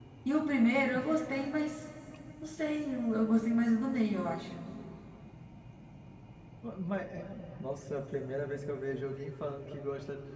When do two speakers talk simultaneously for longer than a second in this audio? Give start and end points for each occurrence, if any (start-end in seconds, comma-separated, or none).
none